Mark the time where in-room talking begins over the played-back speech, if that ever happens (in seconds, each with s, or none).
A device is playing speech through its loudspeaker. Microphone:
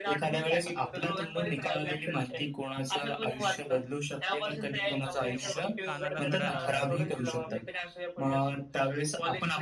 5.3 s